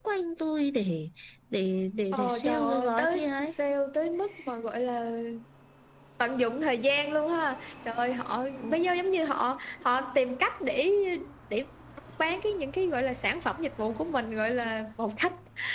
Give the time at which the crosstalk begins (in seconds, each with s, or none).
2.1 s